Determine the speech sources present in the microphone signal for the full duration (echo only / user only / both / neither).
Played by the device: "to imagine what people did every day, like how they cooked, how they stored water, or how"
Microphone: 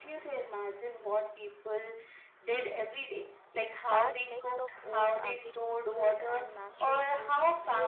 both